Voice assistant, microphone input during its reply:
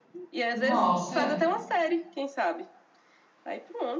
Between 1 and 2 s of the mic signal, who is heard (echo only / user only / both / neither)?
both